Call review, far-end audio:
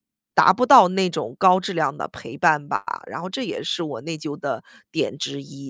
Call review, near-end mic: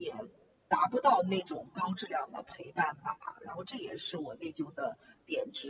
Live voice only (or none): none